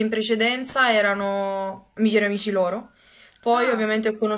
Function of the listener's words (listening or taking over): listening